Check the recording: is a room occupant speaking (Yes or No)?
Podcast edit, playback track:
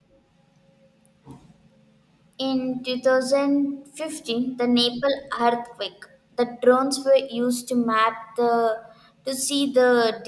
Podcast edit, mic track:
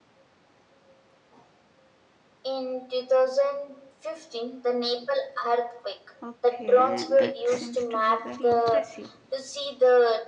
Yes